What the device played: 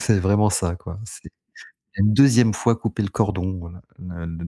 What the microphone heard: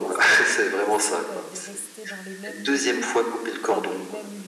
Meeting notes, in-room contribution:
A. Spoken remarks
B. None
A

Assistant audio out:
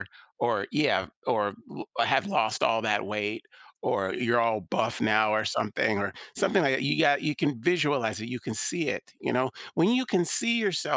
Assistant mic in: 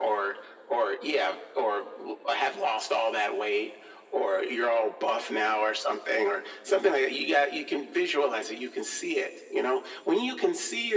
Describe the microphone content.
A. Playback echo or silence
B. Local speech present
A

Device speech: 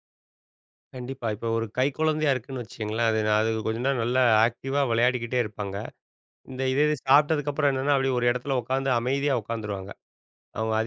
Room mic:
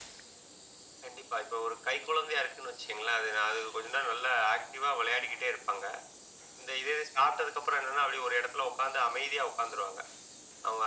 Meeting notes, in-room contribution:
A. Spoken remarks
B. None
B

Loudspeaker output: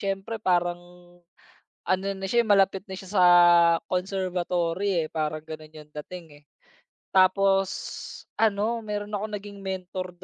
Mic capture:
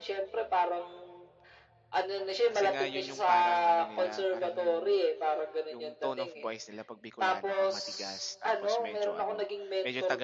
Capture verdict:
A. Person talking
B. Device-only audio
A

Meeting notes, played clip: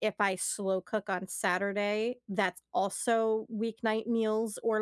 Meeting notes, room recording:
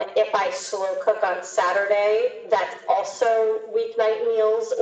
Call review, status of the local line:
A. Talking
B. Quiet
B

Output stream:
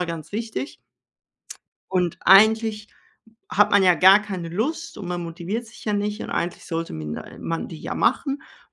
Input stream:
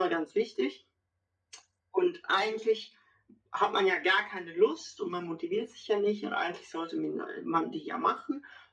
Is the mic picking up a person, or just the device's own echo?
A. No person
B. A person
A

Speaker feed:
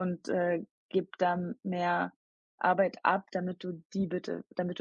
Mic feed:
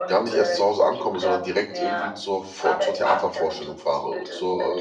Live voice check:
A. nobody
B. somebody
B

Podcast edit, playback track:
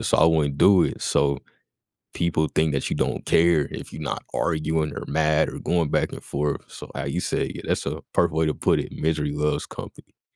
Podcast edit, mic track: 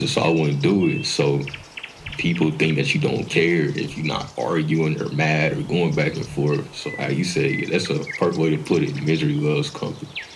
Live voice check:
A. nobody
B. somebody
A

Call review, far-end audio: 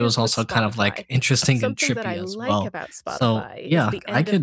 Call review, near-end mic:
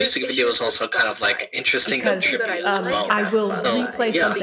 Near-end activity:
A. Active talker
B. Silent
A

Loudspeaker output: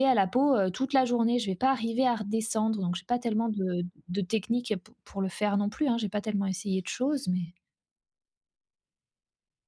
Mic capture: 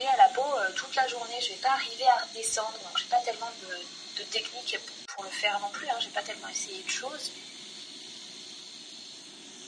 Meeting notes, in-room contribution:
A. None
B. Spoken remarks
A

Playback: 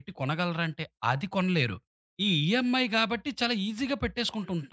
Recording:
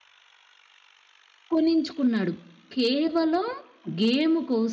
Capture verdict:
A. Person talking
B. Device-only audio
A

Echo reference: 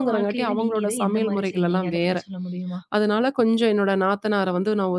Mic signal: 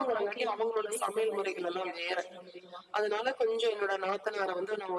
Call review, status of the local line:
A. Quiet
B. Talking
A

